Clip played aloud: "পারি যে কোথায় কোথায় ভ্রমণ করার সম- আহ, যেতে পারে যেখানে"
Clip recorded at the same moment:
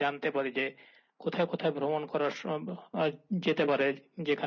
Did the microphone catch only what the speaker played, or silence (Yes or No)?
Yes